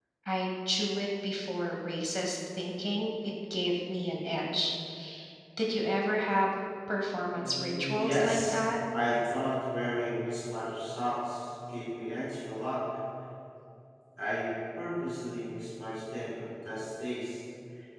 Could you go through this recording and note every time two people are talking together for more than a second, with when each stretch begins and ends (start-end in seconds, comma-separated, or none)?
7.3-8.6